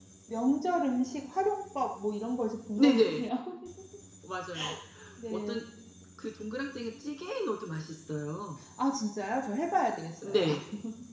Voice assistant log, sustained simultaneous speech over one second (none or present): none